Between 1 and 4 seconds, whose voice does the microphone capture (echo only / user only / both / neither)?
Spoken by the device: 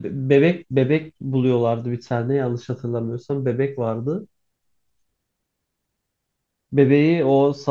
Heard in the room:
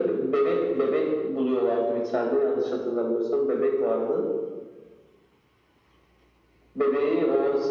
echo only